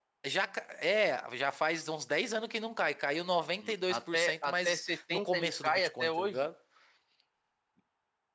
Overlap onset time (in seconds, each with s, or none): 3.9 s